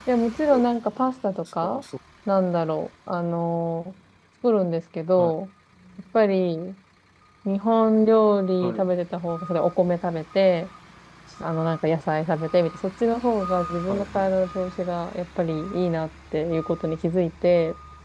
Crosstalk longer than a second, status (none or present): none